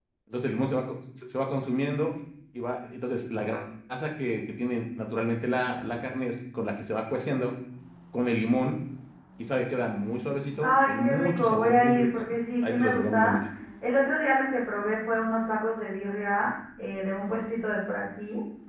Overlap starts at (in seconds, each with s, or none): 10.6 s